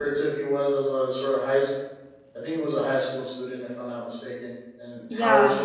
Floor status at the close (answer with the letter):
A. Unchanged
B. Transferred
A